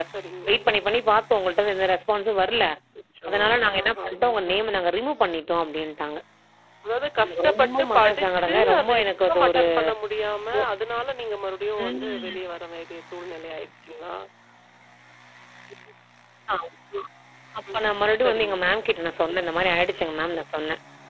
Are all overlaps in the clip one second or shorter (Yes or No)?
No